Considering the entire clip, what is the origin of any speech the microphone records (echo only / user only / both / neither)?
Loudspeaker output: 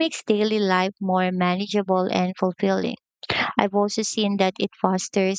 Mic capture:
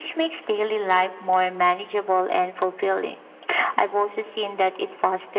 echo only